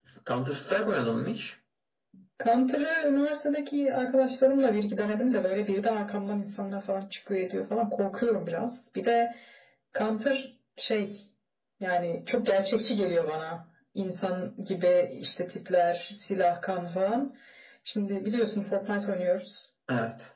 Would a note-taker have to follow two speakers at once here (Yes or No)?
No